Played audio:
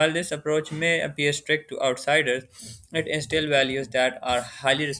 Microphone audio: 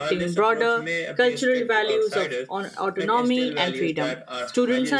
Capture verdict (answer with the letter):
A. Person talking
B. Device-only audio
A